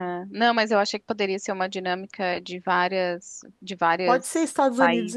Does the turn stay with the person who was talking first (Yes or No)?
No